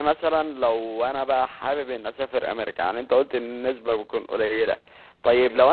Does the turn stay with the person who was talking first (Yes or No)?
Yes